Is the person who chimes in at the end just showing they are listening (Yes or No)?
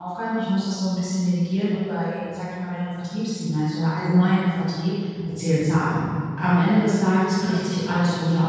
Yes